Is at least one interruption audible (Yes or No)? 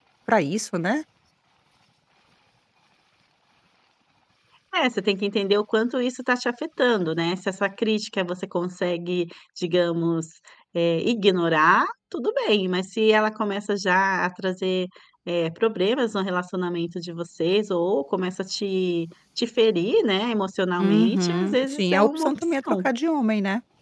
Yes